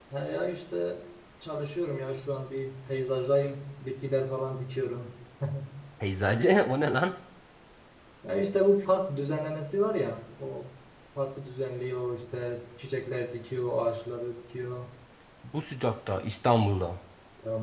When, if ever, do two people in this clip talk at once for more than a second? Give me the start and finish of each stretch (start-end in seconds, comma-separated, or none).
none